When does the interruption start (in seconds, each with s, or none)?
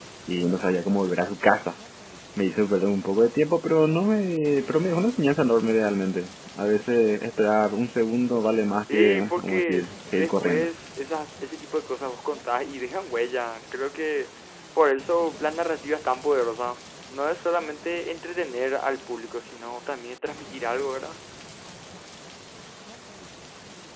8.9 s